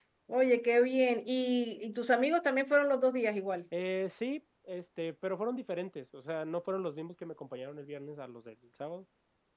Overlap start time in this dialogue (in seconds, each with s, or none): none